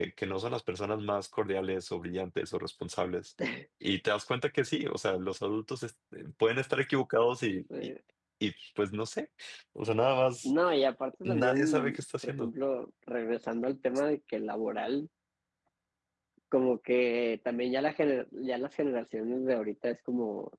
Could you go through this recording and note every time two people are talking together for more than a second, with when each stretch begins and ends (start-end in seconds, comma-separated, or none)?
11.2-12.5